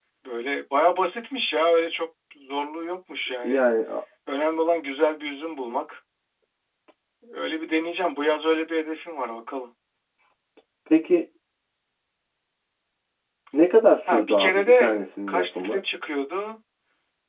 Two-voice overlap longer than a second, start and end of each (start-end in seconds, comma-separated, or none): 14.1-15.8